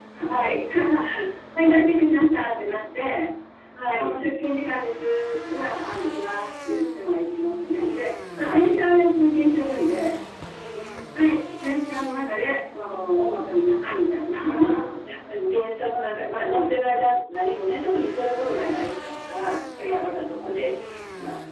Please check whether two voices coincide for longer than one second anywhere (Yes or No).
No